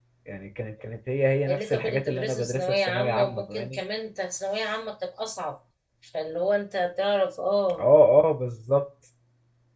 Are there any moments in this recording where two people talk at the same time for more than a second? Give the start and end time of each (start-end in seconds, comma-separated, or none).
1.5-3.8